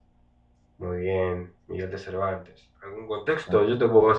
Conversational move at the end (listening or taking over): listening